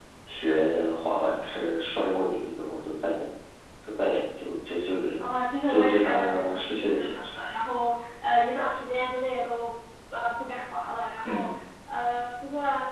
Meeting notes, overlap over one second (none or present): present